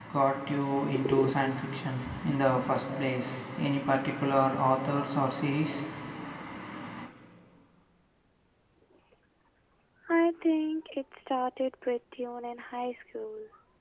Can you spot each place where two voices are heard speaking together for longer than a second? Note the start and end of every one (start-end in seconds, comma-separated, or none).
none